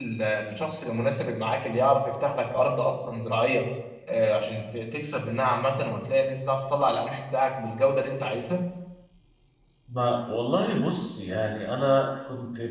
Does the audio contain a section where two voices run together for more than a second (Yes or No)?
No